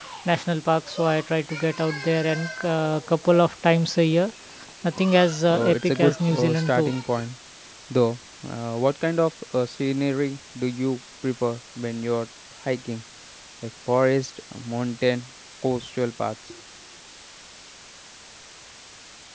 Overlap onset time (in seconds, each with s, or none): 5.5 s